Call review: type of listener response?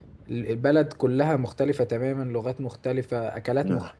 listening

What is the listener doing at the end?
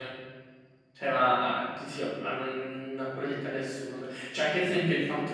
listening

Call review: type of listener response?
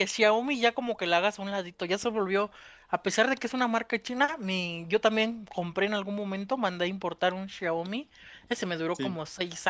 listening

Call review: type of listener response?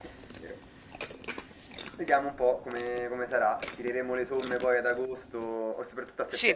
taking over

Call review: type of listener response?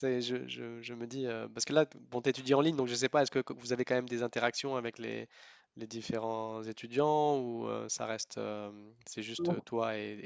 listening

